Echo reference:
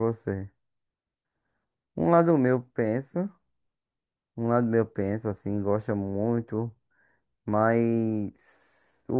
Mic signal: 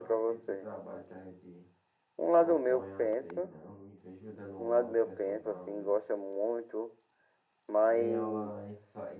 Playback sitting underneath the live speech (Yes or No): No